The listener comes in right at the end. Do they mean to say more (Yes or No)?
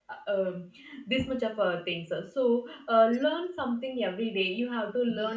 No